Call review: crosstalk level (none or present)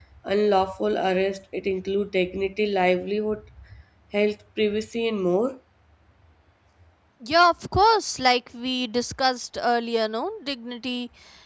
none